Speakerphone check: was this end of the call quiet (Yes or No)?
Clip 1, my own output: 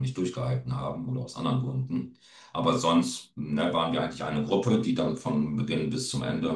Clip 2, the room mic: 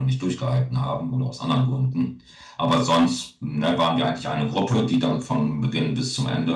Yes